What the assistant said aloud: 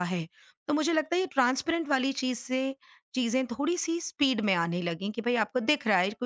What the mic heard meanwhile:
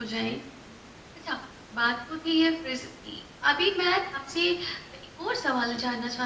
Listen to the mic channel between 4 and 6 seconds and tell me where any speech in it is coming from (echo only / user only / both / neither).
user only